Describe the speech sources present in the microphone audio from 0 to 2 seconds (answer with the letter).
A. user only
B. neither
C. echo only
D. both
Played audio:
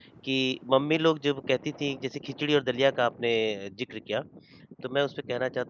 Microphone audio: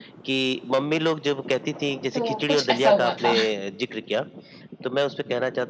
C